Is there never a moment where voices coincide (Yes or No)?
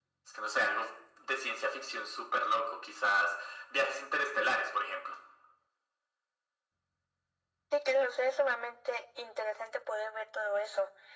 Yes